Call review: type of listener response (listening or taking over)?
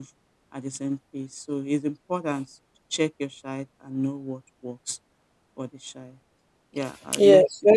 taking over